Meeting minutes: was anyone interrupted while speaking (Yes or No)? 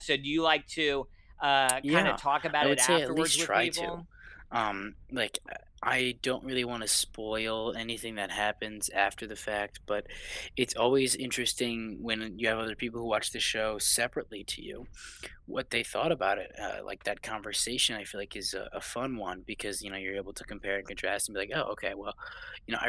Yes